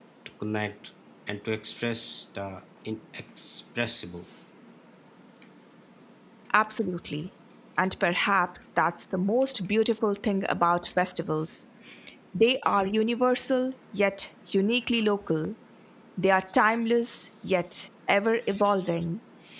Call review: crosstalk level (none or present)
none